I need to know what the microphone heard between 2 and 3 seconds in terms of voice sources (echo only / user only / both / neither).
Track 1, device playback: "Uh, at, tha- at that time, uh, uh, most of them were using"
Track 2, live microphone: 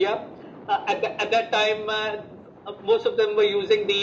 echo only